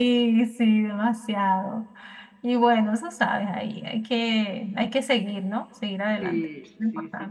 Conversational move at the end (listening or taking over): taking over